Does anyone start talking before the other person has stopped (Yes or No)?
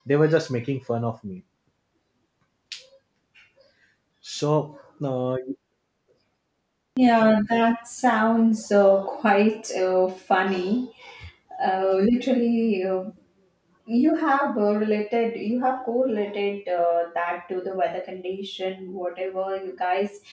No